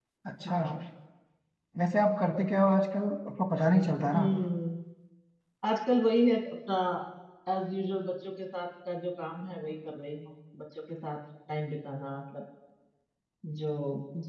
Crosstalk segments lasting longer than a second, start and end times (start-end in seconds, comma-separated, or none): none